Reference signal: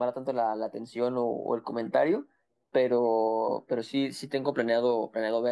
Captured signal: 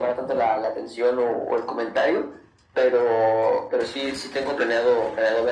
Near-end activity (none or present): none